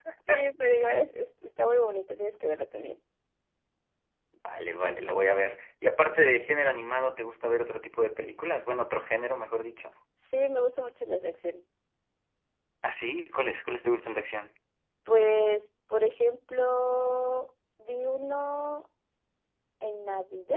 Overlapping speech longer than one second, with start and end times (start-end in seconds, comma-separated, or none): none